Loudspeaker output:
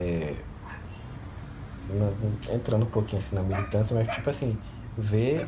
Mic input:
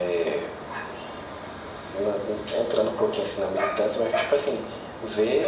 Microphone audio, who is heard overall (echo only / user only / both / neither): echo only